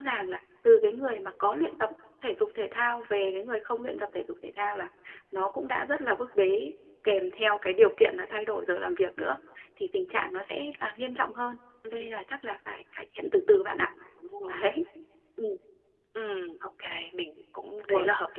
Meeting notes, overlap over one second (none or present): none